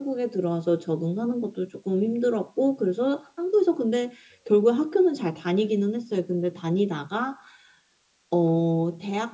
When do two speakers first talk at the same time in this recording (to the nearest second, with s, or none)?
none